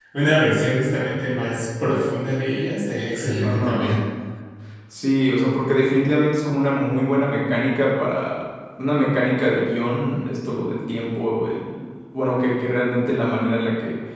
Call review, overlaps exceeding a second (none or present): none